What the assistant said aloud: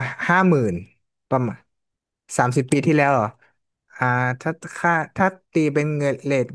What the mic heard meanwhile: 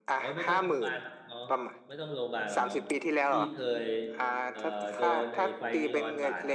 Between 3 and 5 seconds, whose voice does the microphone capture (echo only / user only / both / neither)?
both